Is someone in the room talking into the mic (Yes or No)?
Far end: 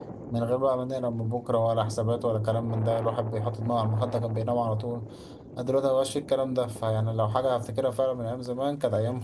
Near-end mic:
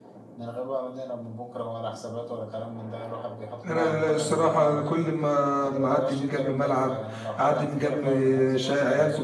Yes